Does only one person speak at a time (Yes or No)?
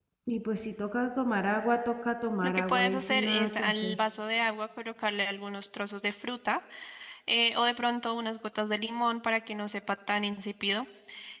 No